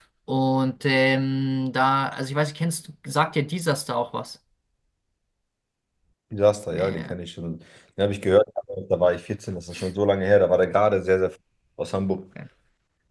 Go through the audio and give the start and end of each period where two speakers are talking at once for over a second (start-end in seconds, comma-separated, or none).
none